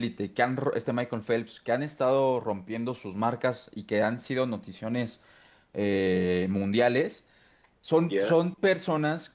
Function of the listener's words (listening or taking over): listening